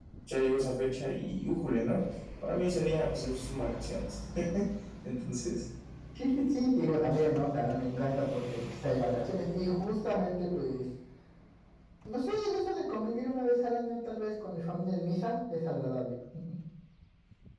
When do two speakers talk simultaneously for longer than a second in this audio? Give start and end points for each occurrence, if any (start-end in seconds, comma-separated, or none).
none